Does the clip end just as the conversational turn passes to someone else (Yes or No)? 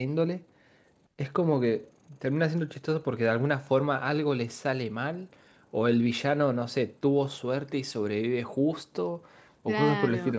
Yes